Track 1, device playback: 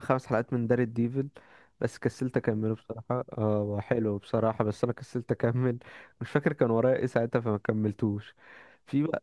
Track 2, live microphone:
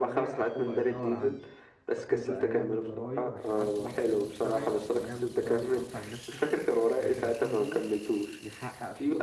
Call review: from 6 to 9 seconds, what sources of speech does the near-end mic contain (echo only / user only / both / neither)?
both